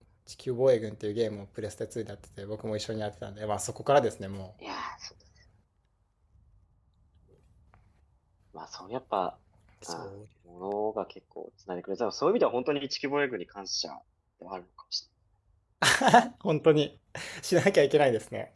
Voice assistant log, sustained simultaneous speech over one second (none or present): none